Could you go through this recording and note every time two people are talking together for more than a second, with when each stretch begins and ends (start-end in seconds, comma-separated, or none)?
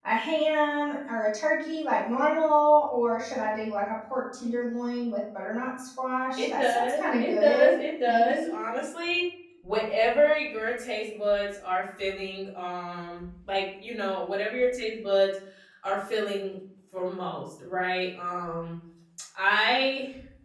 6.4-8.6